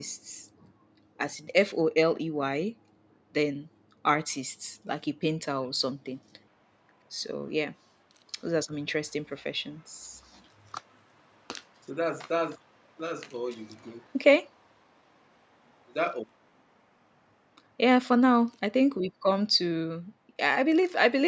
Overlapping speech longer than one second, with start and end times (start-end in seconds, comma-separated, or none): none